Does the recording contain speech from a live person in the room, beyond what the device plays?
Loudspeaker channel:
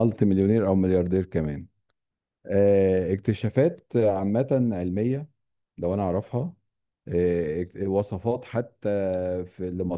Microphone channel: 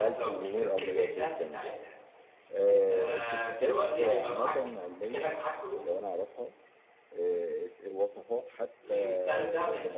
Yes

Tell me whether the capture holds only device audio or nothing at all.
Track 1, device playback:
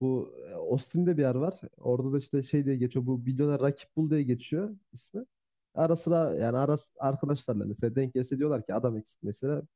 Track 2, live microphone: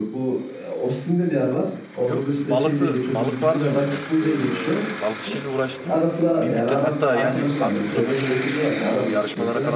No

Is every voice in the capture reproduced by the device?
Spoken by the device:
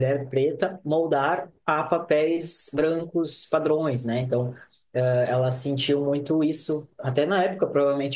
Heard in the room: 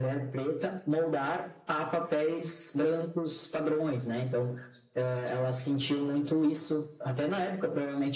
Yes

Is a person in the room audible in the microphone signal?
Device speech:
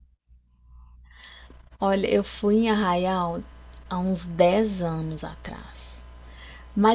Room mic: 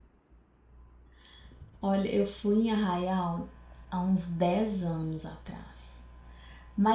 No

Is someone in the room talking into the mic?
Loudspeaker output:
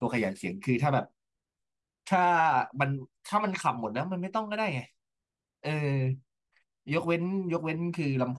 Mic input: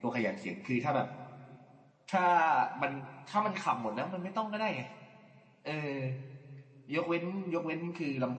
No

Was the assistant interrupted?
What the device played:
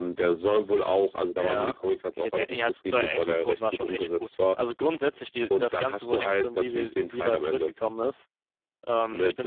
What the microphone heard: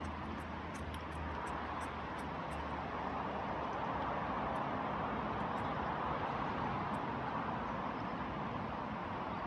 No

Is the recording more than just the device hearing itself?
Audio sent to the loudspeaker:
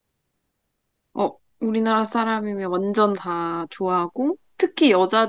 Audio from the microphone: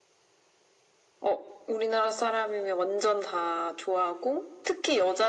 No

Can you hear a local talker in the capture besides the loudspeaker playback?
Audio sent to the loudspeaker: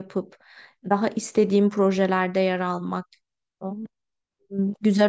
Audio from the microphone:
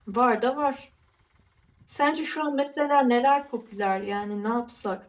Yes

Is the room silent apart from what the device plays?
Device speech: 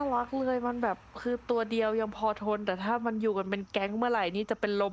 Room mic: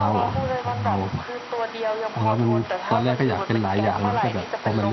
No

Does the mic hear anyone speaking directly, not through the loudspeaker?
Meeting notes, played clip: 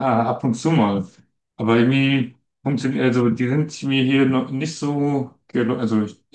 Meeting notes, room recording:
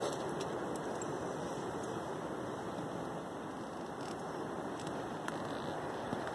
No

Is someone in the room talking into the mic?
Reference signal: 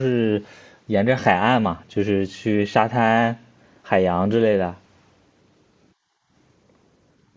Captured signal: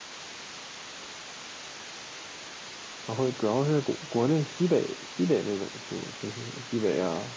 Yes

